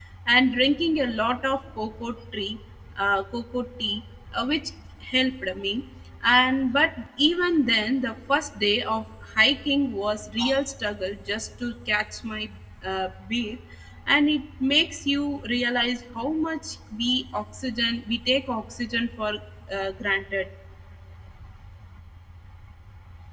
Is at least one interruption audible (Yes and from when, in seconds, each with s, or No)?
No